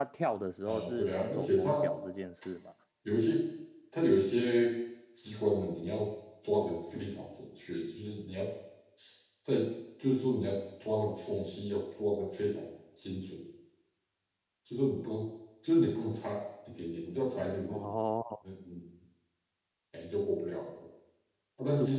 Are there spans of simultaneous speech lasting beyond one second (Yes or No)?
Yes